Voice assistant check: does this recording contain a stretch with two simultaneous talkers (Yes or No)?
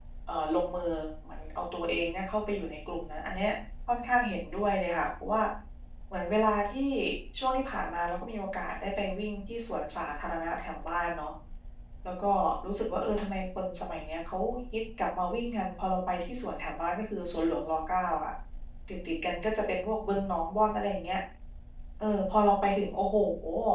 No